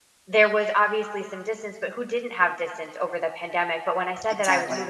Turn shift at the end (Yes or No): No